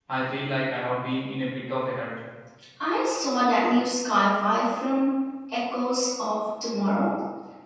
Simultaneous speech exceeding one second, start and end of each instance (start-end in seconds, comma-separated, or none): none